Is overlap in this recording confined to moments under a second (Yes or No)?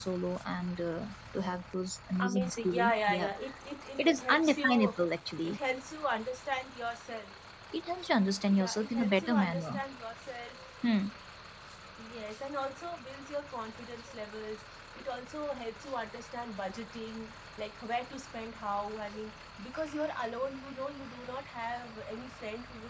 No